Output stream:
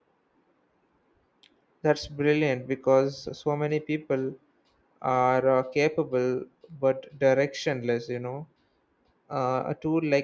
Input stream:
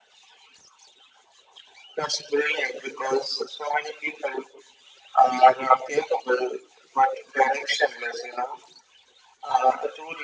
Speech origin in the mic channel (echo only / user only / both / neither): echo only